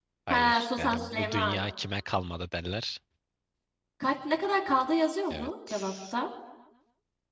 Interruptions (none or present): present